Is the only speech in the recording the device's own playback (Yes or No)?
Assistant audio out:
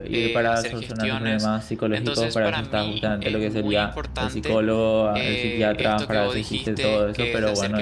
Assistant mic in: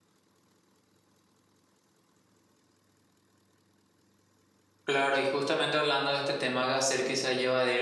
No